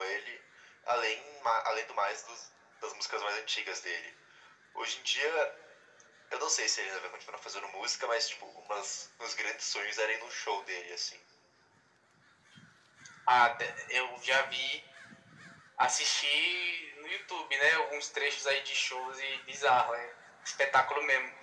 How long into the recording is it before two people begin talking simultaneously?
none

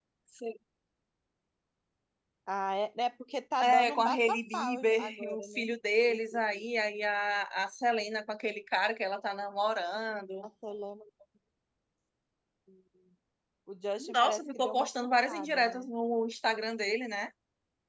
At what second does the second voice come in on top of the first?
3.6 s

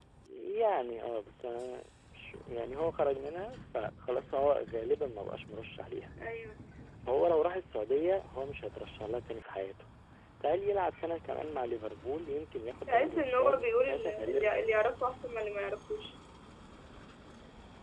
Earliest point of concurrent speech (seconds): 12.9 s

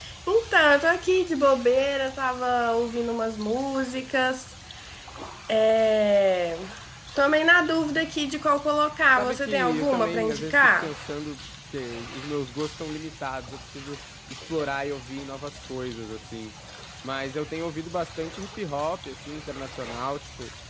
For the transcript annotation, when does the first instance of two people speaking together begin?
9.1 s

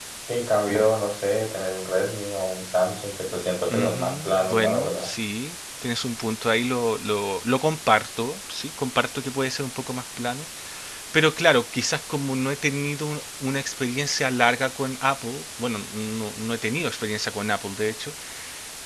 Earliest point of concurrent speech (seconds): 3.7 s

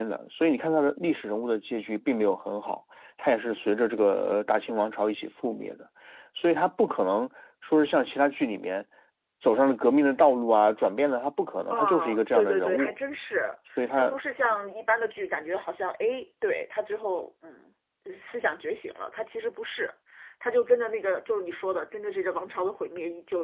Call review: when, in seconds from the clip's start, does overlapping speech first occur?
11.7 s

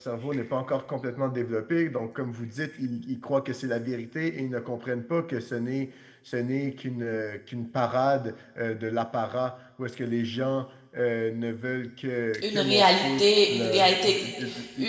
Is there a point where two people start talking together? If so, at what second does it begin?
12.4 s

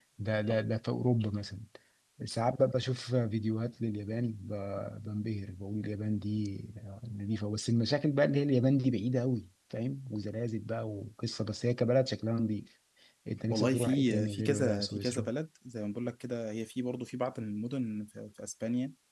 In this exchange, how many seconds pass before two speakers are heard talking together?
13.5 s

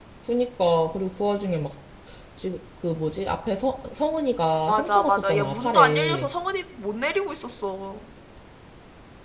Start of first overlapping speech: 4.7 s

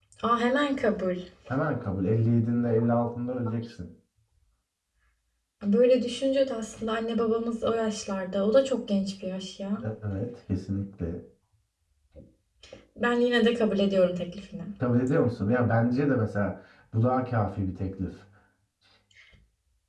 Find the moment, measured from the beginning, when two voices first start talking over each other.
none

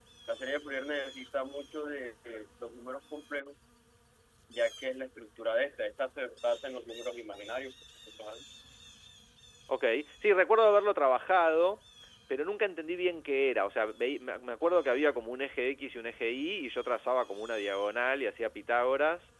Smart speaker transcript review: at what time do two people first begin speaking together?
none

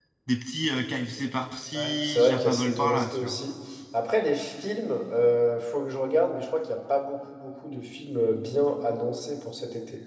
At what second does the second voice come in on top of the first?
1.7 s

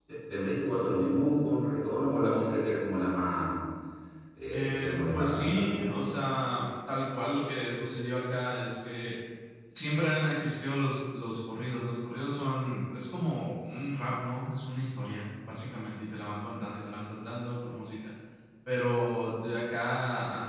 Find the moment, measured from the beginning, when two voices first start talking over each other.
4.5 s

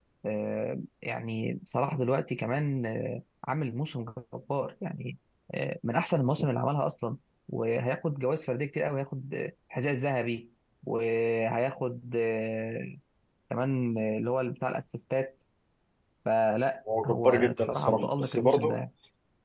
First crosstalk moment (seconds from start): 17.0 s

